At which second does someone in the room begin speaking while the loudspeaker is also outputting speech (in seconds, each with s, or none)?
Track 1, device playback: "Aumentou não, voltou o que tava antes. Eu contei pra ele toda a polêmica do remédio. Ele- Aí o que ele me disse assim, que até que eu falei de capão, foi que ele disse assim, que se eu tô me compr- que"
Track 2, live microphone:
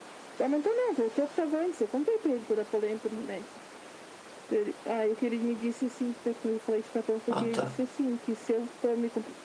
7.3 s